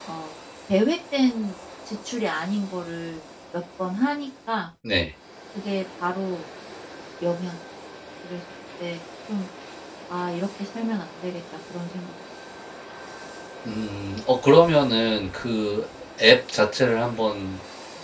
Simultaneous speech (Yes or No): No